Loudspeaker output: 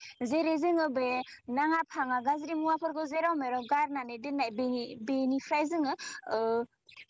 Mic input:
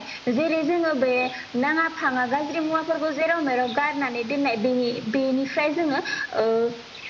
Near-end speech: none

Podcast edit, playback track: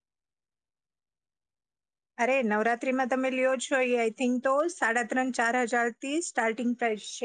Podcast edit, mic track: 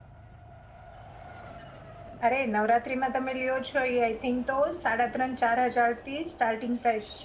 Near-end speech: none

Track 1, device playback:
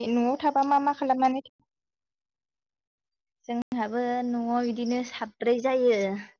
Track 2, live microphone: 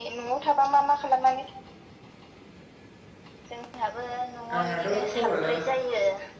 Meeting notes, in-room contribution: present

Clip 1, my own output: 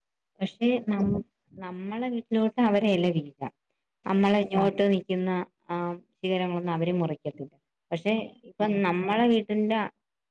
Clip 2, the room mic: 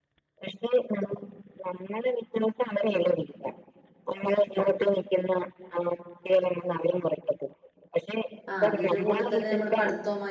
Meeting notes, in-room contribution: present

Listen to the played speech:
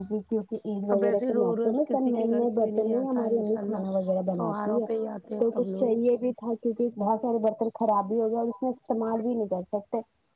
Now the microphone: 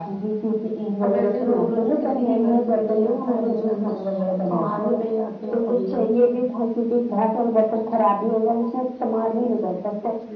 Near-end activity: present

